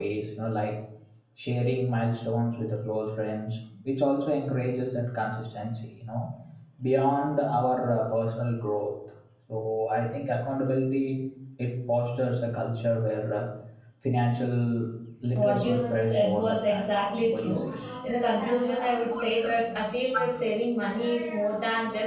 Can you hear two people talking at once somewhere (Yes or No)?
Yes